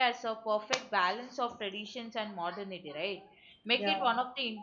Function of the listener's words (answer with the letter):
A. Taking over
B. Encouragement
B